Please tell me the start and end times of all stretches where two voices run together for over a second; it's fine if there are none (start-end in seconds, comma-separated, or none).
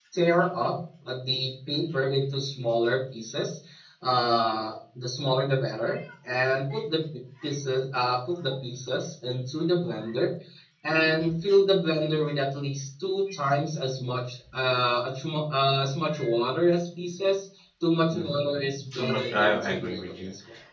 18.9-20.2